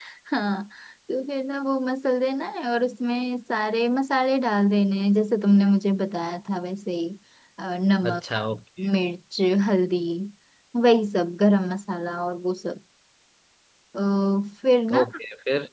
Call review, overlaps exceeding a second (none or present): none